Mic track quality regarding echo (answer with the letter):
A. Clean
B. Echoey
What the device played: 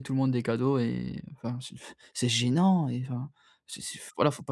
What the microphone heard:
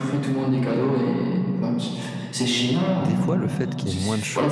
B